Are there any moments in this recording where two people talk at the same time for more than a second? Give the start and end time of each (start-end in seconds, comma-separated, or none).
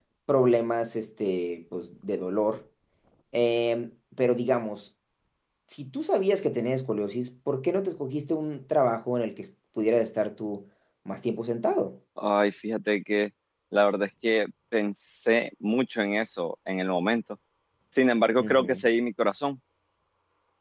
none